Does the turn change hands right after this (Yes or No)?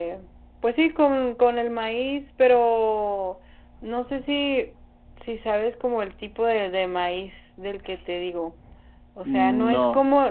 No